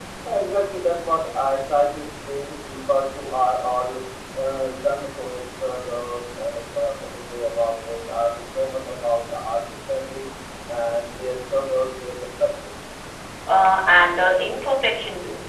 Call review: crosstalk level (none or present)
none